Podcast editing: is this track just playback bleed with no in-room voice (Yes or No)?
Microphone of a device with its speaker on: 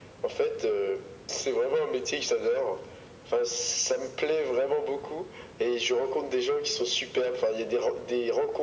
Yes